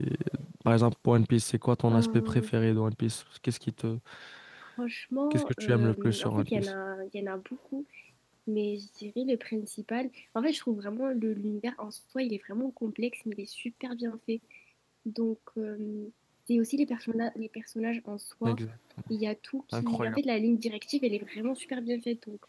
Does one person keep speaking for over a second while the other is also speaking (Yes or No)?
Yes